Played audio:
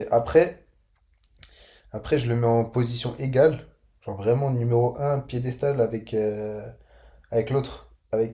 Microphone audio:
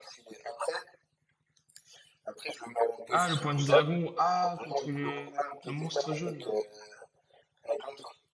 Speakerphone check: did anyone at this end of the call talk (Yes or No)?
Yes